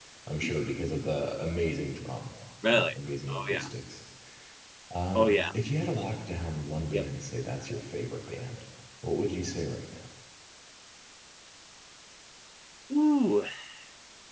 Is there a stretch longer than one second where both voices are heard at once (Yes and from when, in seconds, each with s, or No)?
No